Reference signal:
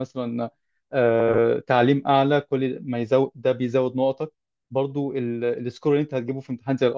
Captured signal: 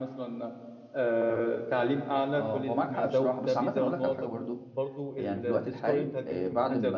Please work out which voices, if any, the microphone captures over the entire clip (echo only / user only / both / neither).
both